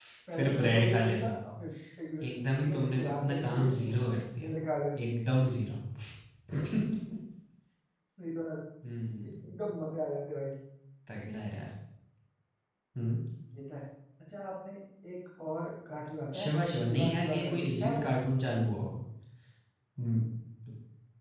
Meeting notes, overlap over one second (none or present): present